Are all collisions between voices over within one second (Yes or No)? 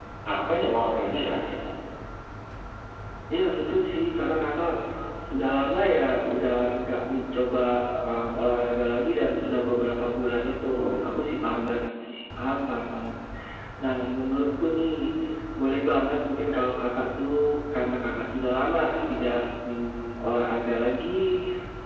Yes